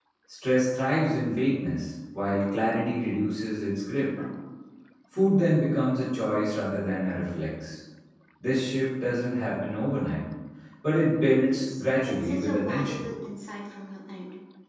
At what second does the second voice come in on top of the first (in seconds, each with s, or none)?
11.5 s